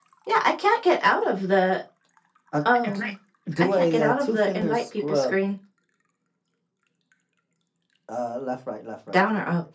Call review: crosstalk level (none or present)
present